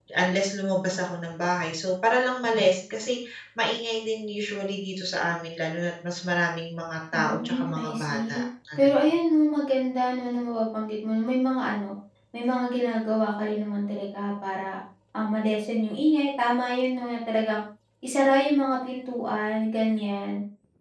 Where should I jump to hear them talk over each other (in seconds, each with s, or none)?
7.1 s